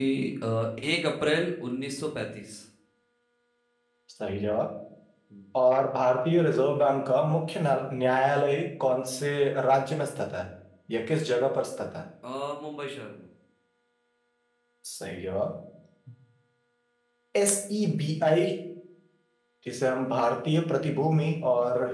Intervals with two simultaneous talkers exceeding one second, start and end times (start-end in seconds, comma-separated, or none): none